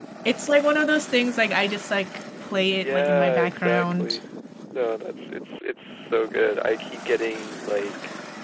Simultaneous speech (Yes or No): Yes